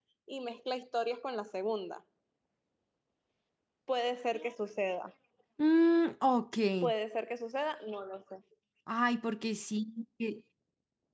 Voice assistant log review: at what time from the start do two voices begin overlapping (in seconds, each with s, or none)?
none